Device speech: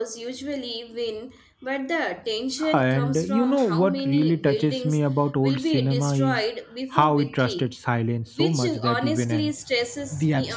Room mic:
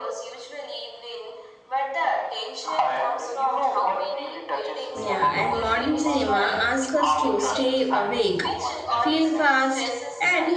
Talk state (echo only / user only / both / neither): both